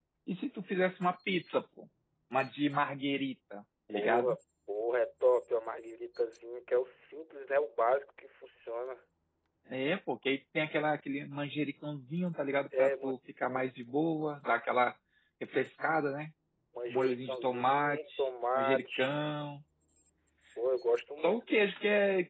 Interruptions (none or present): present